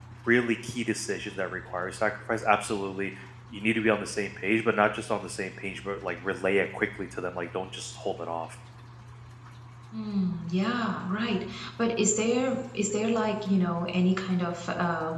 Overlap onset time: none

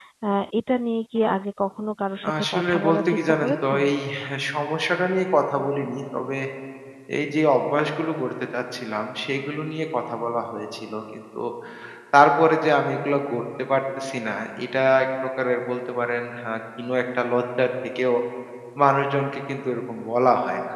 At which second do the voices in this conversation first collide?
2.2 s

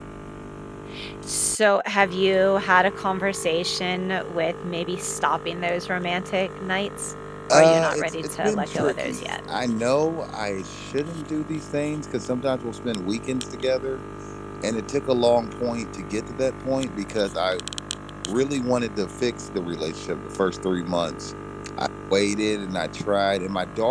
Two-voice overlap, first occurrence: 7.5 s

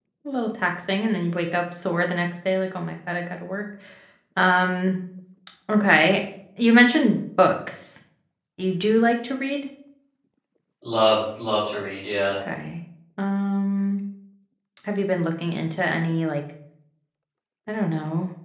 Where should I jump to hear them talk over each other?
none

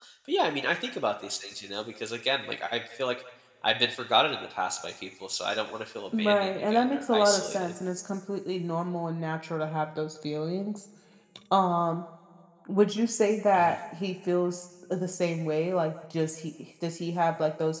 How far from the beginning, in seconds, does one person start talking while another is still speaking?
6.2 s

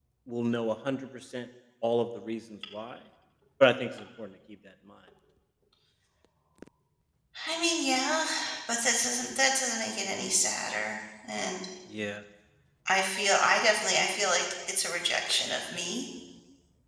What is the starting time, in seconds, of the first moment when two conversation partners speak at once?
none

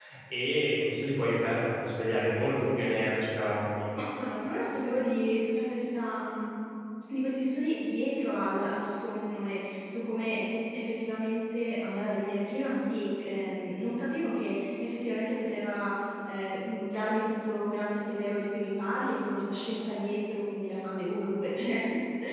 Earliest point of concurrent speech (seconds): none

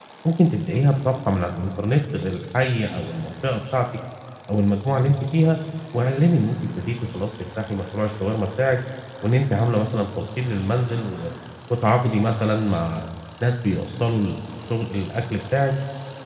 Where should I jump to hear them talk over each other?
none

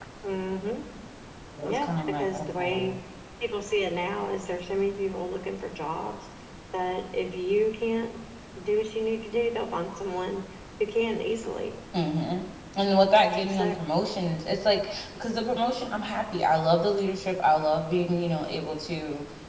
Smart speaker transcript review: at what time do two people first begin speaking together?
1.6 s

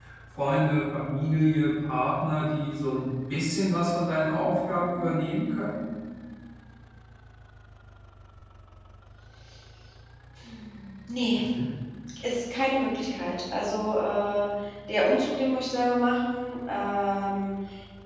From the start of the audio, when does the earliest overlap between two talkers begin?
none

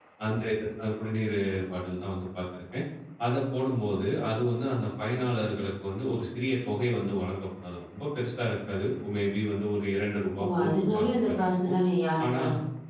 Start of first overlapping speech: 10.4 s

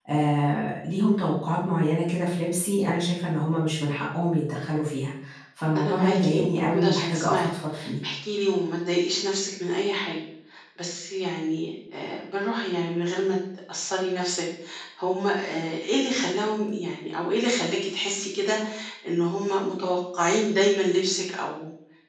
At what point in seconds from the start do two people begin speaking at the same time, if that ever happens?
5.8 s

